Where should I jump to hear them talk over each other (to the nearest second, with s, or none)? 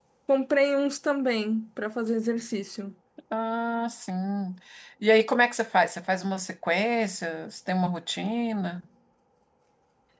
none